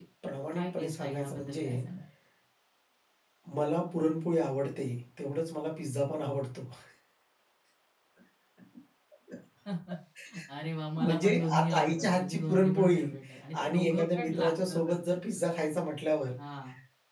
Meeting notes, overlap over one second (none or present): present